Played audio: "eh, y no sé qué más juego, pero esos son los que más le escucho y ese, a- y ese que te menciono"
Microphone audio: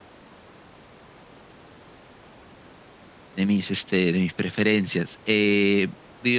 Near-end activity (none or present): present